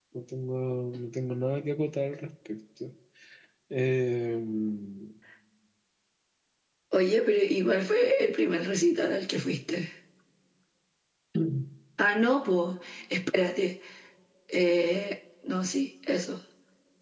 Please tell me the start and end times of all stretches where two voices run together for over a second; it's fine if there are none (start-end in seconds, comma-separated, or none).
none